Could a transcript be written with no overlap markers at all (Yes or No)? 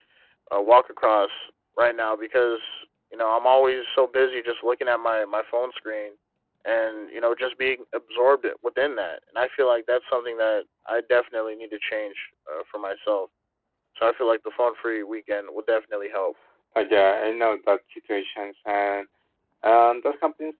Yes